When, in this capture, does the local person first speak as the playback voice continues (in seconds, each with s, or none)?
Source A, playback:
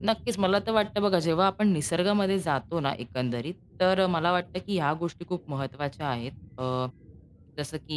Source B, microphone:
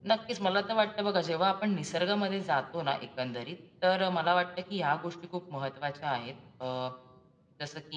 none